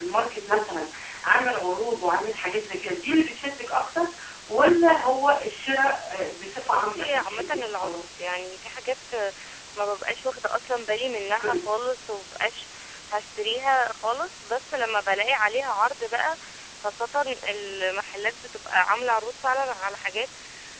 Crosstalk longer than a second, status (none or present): present